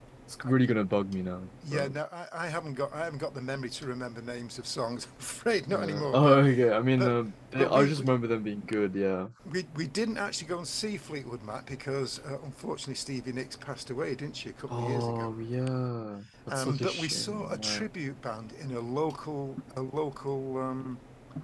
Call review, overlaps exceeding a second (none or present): present